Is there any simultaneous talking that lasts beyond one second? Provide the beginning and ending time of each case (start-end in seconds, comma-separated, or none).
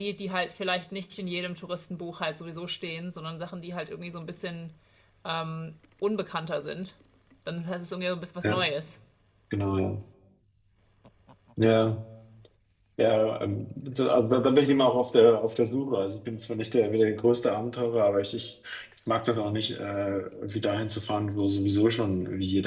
none